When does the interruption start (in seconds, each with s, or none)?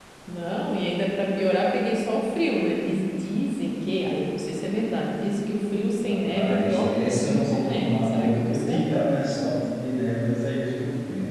6.1 s